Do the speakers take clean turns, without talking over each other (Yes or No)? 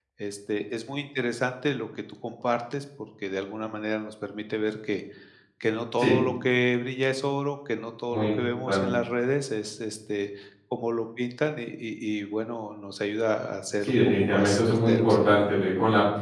No